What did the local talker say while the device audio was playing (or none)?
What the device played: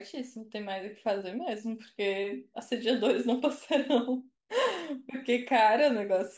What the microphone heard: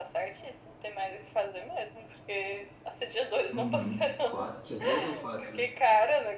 Uhum. Quatro? Tinha três ou quatro?